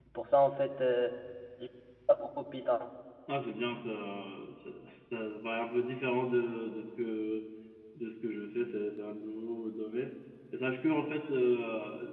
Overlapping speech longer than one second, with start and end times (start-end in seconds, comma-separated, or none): none